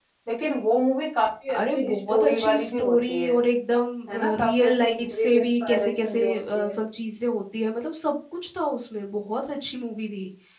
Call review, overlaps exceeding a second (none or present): present